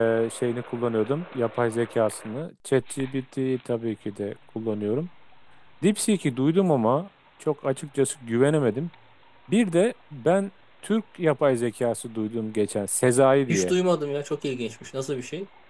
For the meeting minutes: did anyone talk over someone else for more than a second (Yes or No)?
No